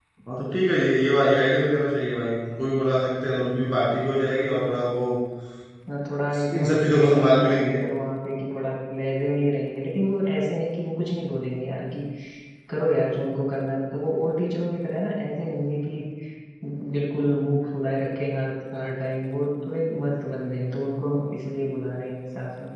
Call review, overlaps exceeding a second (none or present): present